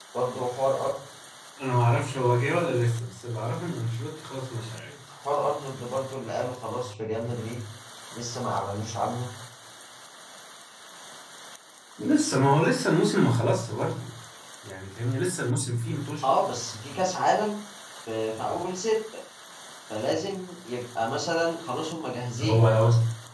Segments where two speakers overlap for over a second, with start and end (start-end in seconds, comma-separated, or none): none